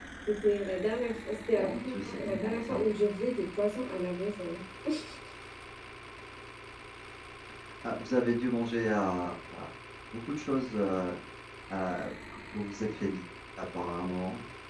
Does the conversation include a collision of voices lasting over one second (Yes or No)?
Yes